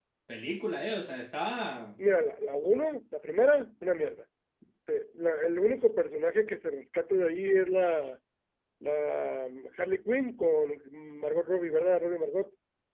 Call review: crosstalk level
none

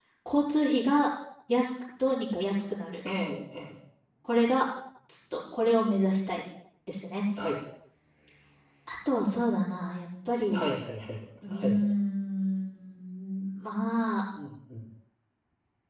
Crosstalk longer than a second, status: none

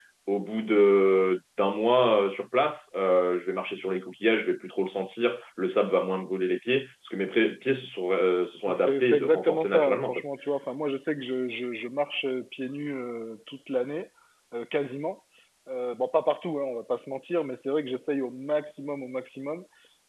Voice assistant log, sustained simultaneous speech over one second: present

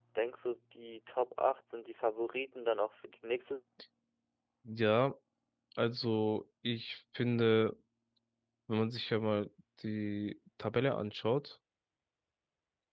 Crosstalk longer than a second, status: none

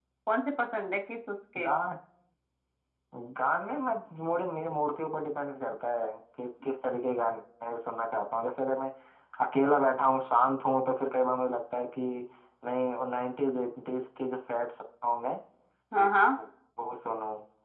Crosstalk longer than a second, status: none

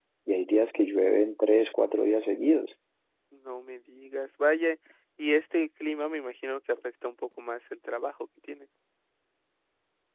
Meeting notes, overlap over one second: none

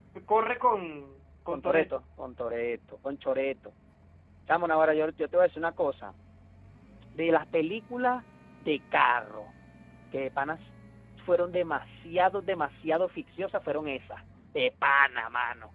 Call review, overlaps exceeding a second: none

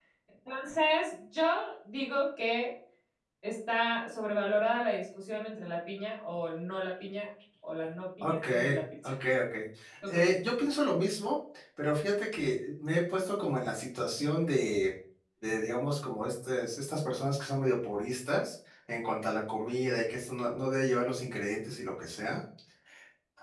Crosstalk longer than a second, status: none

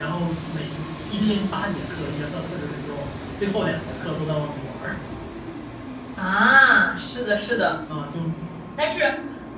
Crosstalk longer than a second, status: none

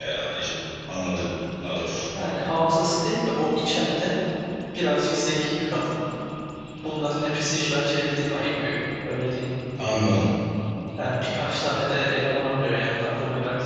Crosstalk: none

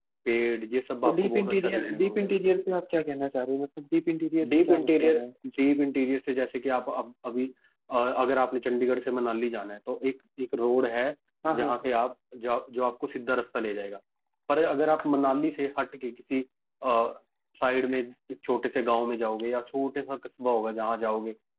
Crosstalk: present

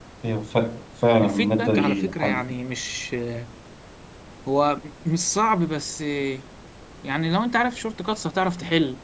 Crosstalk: present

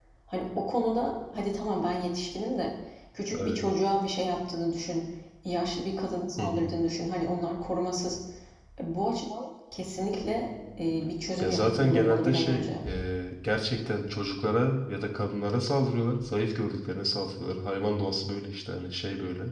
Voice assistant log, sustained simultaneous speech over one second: present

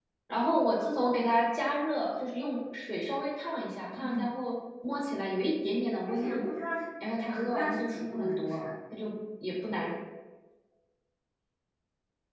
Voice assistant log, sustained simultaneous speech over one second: present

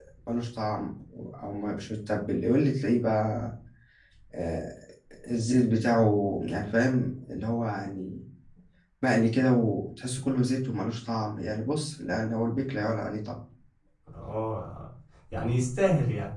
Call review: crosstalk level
none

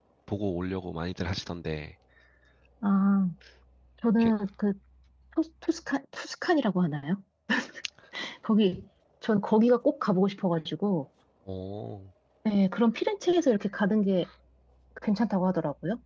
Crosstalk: none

